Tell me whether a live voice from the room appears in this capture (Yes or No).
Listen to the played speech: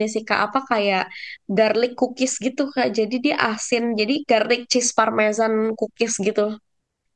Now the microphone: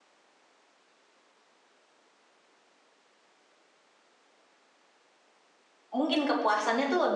Yes